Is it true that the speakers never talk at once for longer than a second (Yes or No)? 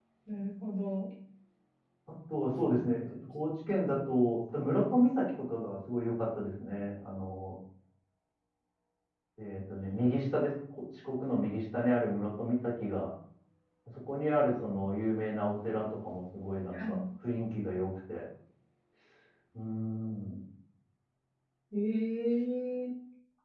Yes